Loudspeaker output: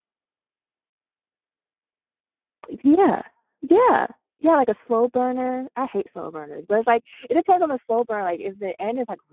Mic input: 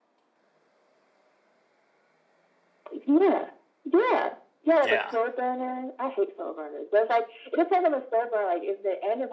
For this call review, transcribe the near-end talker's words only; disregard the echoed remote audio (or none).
Yeah.